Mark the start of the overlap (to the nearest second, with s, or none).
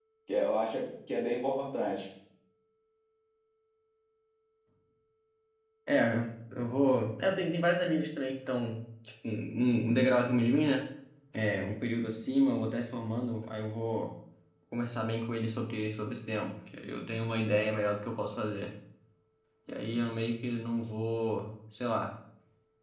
none